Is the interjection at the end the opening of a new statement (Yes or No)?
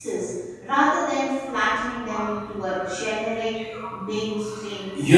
Yes